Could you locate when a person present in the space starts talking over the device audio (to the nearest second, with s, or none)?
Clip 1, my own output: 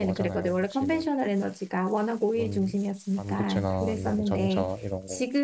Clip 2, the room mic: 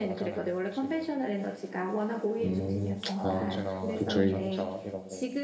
2 s